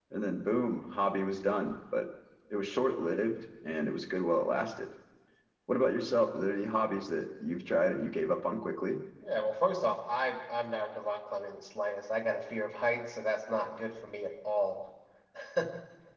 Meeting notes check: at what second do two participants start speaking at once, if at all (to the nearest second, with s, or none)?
none